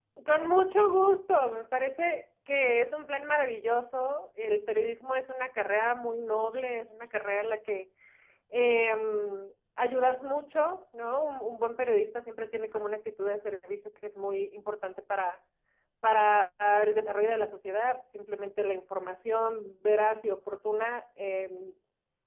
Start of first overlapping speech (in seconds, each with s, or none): none